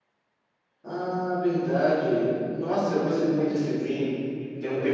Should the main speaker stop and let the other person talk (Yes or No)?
No